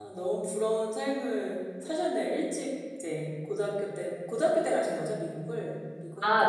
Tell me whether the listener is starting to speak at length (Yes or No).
Yes